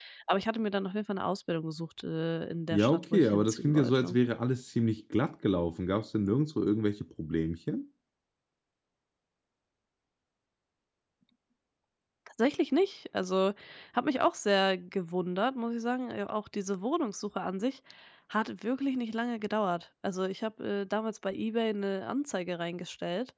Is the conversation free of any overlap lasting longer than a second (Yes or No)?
No